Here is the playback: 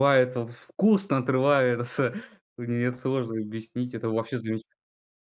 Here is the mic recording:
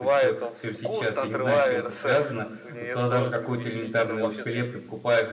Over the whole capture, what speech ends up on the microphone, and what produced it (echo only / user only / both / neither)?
both